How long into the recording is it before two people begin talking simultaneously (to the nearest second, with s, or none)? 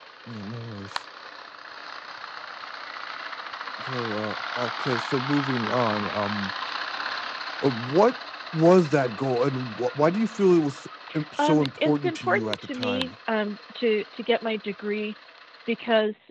11 s